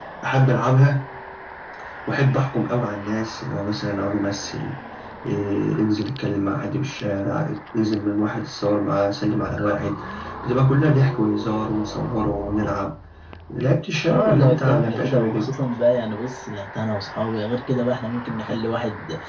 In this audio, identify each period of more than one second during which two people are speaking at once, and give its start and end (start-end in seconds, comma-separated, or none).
14.1-15.5